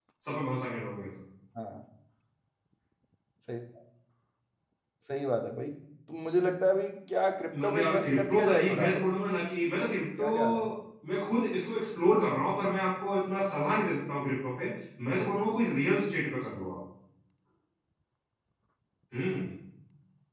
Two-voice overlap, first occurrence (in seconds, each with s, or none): 7.6 s